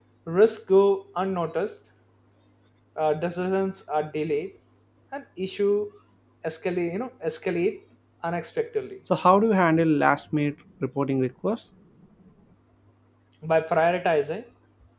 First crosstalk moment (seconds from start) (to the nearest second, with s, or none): none